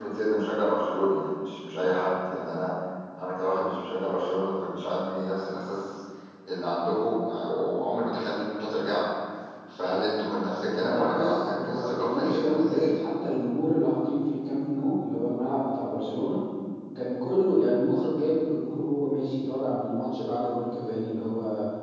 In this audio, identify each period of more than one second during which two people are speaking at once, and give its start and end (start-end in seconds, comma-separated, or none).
10.8-12.9